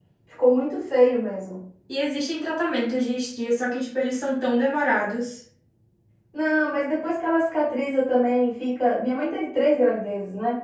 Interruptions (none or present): none